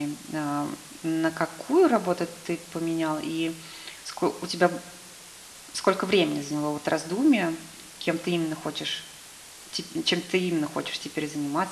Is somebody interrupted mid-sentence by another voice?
No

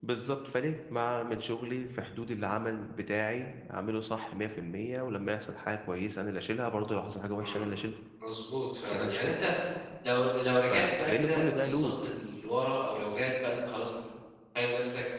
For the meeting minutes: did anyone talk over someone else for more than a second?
Yes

